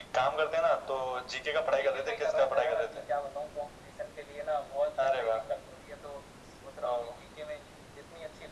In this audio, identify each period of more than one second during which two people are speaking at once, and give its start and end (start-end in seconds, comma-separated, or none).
1.8-3.0